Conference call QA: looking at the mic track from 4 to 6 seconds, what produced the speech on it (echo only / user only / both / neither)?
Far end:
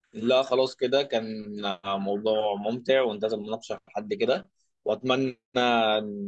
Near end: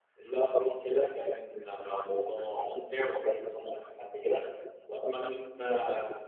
echo only